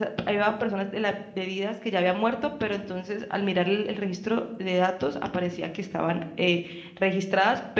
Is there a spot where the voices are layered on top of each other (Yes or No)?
No